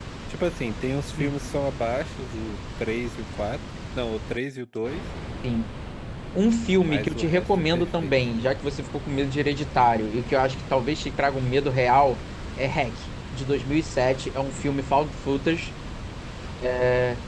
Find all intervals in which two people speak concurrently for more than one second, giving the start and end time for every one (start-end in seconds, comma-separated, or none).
6.8-8.1